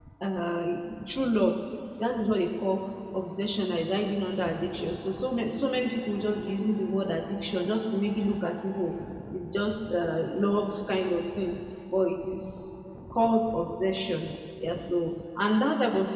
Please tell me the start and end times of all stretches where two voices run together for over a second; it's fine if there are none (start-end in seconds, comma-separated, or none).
none